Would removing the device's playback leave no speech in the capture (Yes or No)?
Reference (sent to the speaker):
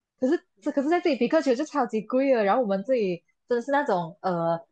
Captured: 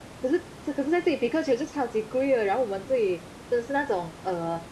Yes